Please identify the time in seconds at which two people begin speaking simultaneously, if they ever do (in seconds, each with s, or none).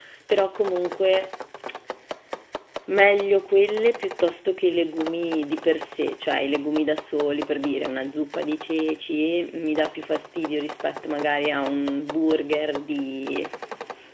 none